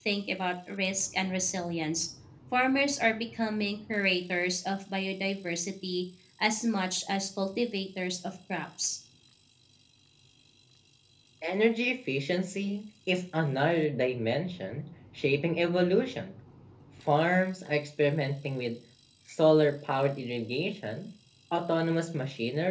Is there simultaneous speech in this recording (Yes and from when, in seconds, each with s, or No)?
No